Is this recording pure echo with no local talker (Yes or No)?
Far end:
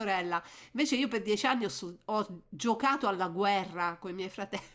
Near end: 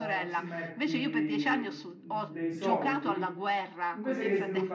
No